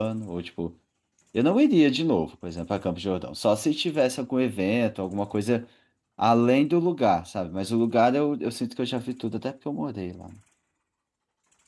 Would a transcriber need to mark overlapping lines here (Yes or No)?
No